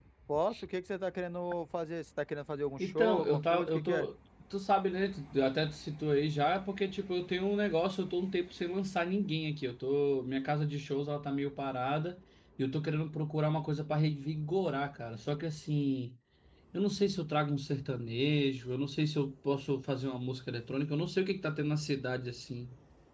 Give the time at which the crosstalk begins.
2.8 s

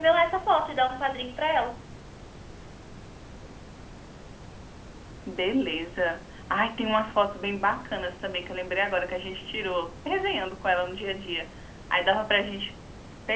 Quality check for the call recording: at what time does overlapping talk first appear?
none

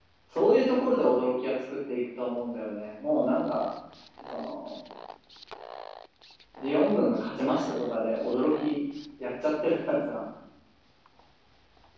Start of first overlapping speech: none

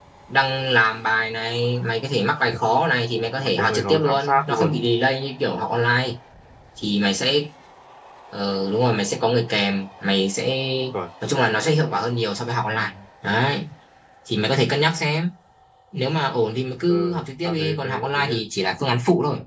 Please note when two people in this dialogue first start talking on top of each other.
3.4 s

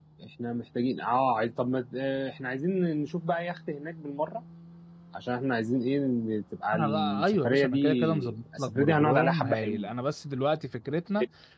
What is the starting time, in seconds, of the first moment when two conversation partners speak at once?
6.7 s

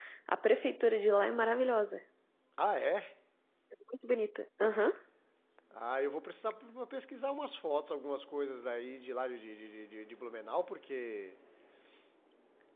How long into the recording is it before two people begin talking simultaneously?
none

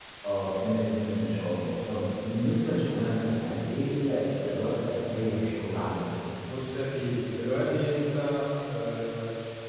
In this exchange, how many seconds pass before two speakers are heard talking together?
none

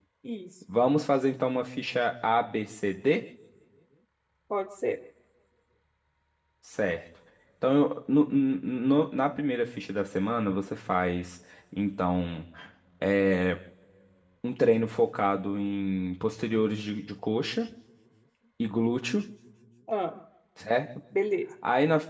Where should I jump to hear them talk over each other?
none

